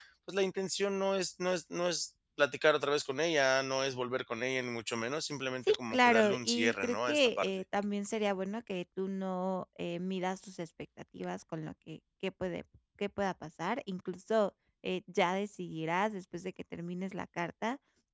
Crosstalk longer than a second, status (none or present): present